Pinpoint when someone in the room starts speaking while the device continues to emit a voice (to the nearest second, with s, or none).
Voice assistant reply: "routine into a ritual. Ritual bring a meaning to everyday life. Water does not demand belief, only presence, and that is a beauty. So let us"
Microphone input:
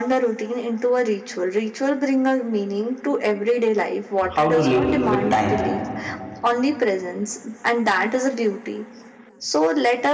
4 s